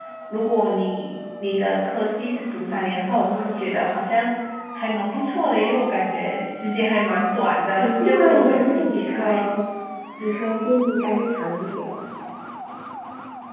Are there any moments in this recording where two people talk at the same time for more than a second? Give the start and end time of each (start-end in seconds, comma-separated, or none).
7.7-9.4